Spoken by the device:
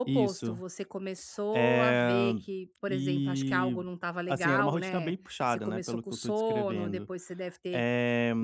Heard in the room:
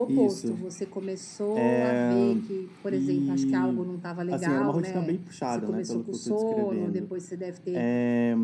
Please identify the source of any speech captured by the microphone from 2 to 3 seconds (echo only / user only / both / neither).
echo only